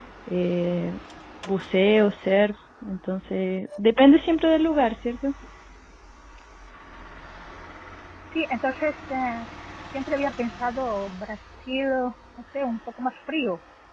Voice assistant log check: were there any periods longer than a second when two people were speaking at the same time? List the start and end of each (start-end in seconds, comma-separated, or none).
none